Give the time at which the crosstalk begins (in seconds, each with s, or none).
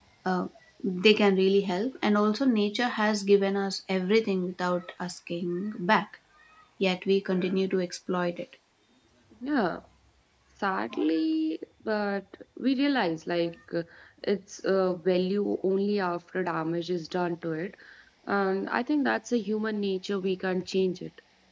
none